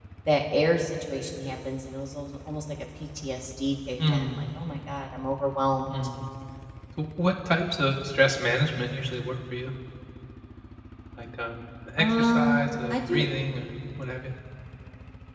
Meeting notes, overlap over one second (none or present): present